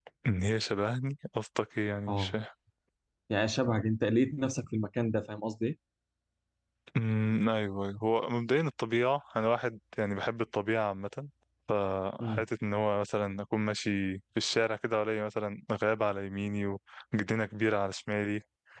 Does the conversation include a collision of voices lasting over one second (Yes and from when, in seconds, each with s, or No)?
No